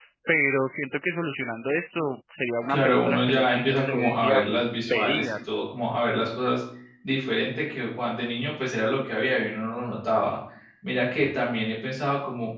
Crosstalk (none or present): present